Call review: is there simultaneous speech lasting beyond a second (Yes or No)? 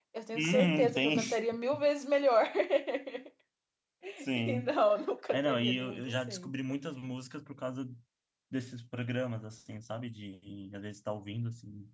Yes